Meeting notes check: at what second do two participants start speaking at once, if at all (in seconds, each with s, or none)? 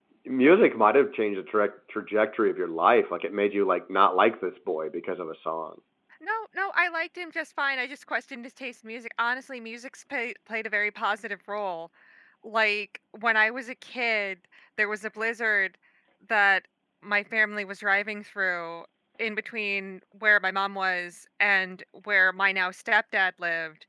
none